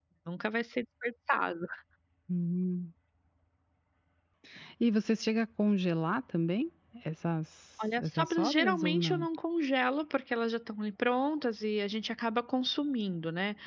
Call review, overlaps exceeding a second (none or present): present